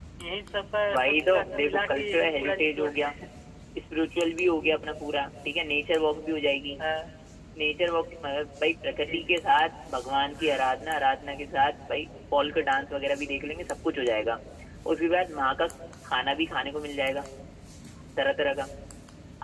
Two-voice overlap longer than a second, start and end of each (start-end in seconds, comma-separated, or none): 0.9-3.1